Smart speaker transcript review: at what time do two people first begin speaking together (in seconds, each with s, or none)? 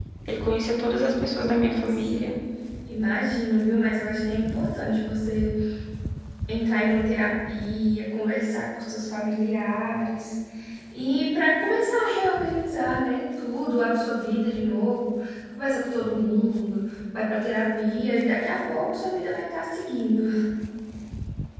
0.6 s